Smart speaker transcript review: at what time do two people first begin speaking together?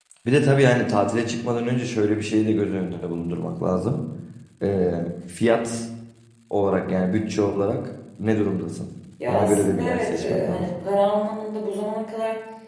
9 s

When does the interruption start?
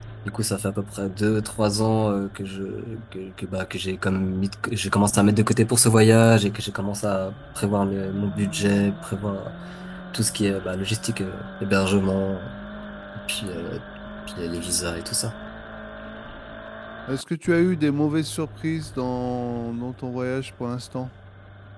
none

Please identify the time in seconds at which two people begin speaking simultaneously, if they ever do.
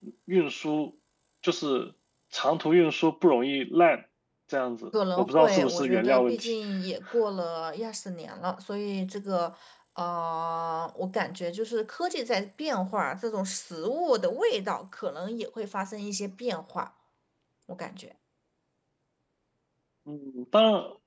5 s

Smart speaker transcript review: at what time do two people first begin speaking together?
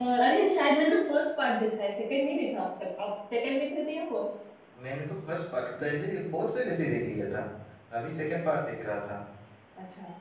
none

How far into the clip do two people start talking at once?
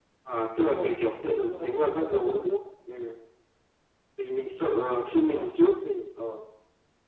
1 s

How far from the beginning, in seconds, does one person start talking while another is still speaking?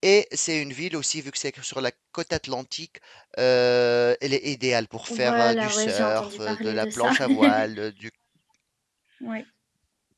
5 s

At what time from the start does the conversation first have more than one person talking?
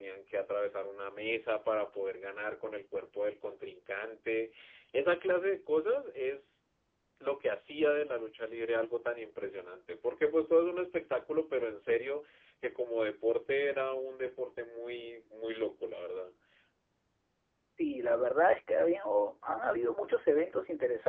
none

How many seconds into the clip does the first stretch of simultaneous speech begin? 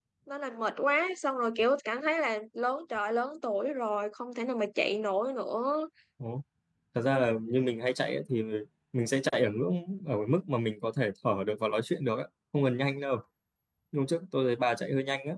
none

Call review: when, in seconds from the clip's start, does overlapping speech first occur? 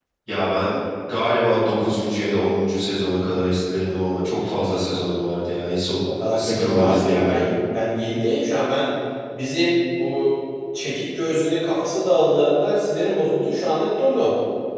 6 s

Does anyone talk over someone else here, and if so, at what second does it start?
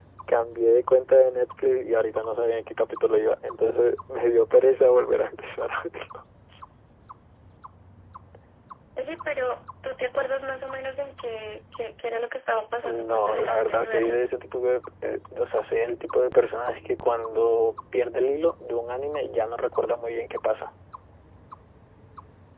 13 s

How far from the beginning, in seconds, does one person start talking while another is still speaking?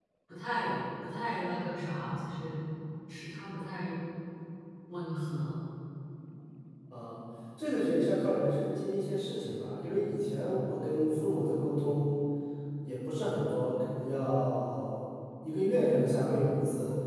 none

